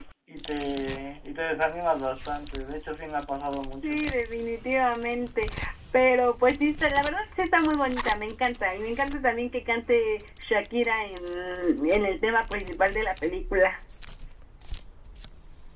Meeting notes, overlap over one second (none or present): none